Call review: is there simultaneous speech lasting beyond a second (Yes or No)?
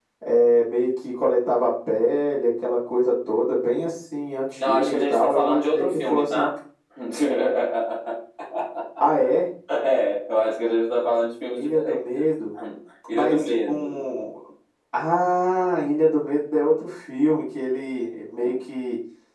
Yes